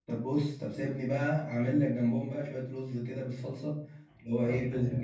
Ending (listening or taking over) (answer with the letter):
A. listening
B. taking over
A